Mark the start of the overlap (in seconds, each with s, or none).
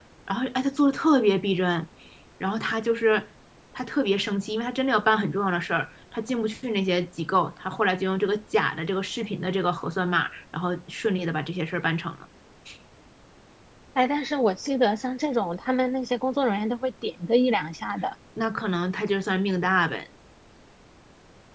none